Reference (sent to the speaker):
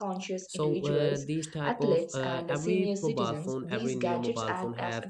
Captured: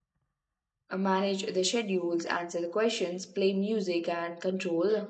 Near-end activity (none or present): present